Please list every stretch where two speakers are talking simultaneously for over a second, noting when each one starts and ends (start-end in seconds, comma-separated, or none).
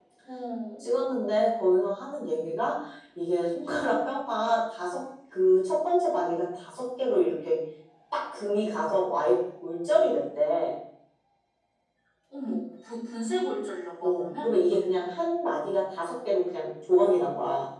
none